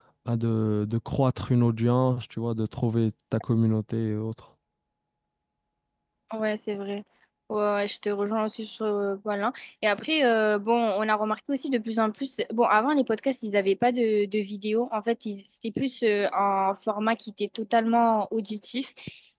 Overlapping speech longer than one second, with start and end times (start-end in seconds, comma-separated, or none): none